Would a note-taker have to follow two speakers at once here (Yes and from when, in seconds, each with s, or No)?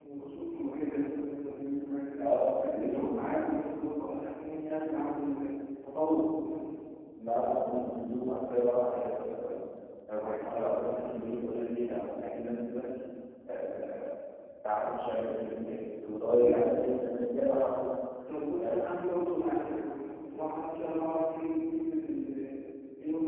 Yes, from 2.2 s